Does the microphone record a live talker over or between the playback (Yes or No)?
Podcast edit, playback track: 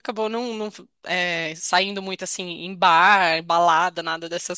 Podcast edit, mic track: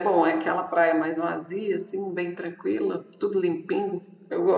Yes